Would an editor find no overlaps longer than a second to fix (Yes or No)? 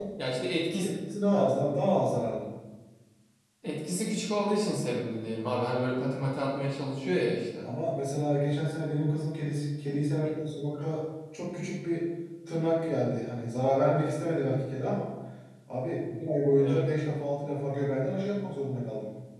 Yes